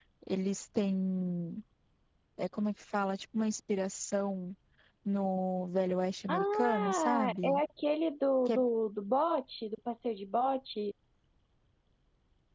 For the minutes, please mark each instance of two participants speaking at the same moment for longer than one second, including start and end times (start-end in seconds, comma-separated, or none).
6.3-7.6